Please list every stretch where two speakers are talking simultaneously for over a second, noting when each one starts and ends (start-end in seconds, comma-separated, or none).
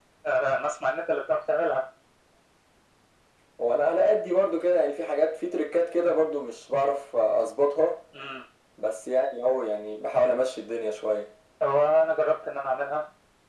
none